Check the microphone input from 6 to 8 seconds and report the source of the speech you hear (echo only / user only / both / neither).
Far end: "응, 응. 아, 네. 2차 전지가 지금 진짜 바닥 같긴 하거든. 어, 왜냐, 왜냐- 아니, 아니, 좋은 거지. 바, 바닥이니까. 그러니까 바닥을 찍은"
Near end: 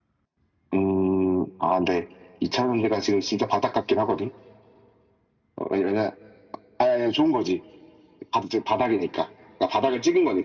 echo only